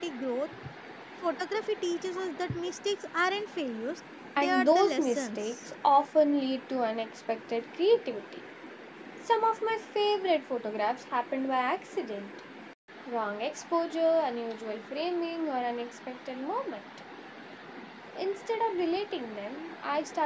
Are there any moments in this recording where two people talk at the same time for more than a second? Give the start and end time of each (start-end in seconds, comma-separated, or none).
4.4-5.7